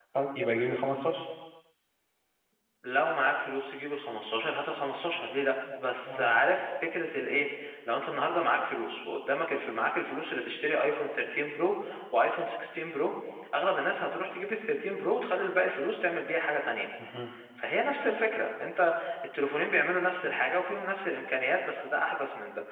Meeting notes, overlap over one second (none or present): none